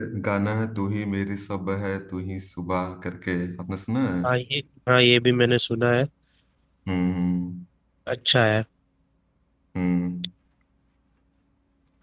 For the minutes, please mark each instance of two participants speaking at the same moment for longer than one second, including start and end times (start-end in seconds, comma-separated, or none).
none